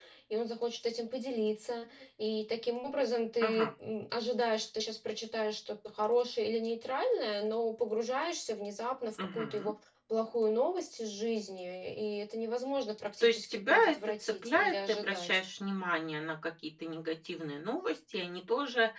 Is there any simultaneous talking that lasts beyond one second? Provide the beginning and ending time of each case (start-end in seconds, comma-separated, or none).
13.2-15.4